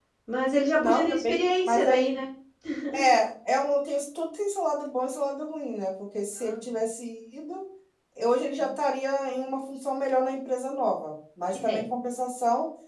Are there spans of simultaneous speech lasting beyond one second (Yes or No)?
Yes